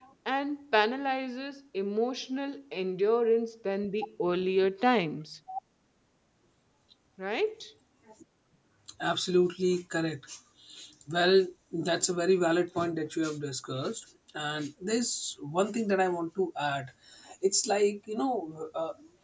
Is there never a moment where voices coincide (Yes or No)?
Yes